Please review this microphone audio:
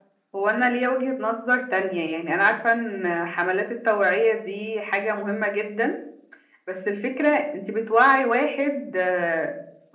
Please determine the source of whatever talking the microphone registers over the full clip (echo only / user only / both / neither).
echo only